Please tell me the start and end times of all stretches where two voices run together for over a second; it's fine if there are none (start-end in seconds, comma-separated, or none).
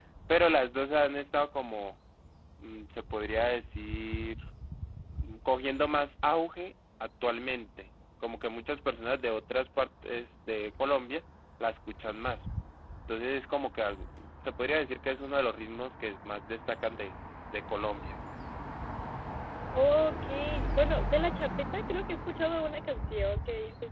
none